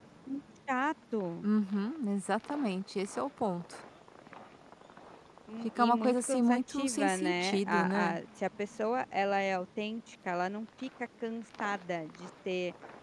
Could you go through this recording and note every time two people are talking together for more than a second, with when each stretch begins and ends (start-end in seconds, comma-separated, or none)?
5.6-8.2